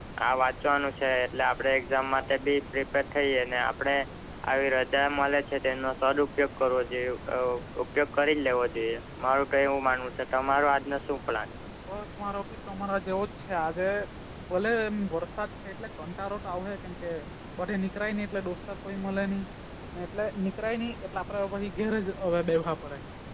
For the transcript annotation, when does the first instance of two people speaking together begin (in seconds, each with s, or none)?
none